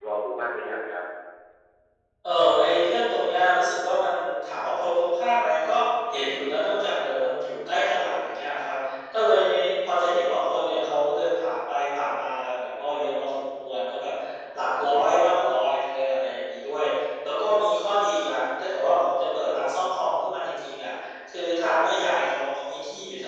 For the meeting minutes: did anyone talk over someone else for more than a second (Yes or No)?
No